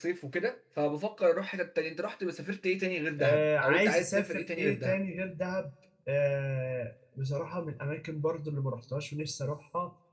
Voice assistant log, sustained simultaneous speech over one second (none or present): present